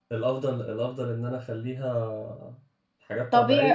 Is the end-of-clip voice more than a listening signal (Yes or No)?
Yes